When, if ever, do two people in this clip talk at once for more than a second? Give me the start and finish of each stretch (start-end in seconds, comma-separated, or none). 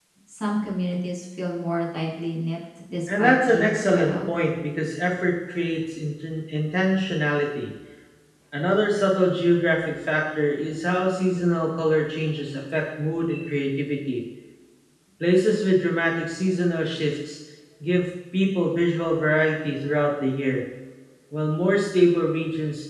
3.1-4.3